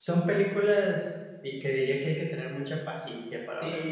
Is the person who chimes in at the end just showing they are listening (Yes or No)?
No